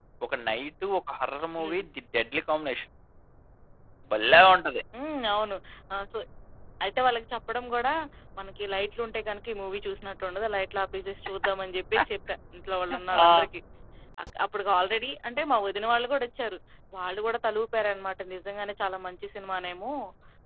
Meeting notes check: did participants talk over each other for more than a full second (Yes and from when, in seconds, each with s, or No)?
No